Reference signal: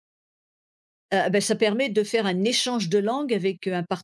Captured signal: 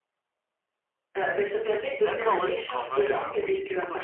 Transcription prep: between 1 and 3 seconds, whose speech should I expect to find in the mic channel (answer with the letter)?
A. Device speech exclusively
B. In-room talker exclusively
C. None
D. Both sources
D